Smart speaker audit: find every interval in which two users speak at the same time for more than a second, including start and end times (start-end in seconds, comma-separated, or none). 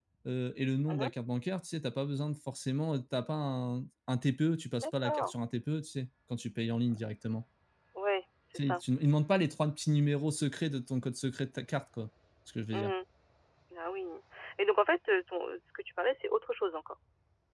none